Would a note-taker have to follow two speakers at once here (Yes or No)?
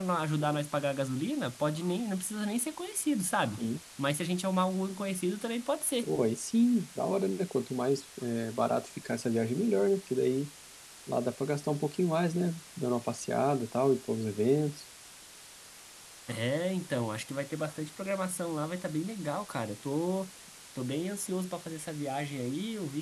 No